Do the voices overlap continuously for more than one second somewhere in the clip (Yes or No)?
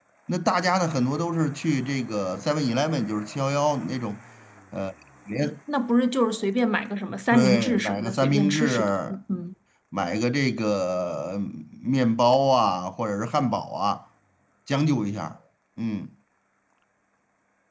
Yes